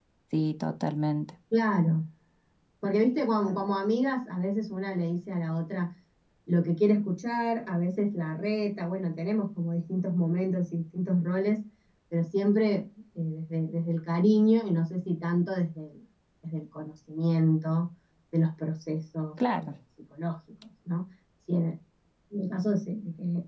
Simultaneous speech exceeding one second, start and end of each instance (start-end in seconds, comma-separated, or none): none